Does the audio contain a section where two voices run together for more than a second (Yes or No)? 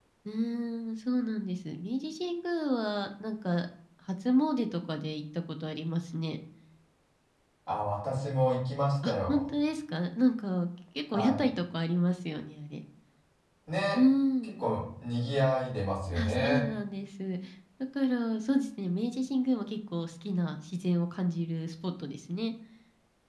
No